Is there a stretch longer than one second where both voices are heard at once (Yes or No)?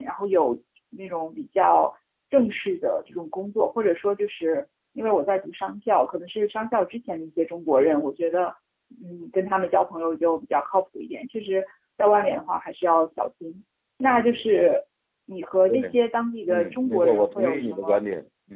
Yes